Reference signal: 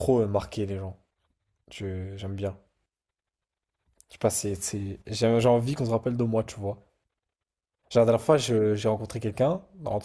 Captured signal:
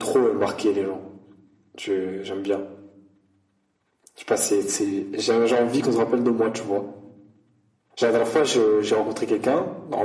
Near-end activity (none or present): none